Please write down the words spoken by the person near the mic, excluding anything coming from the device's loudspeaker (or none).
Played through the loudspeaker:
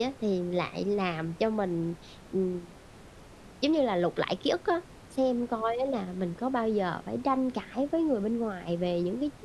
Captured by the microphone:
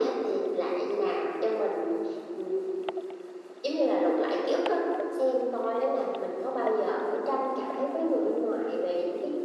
none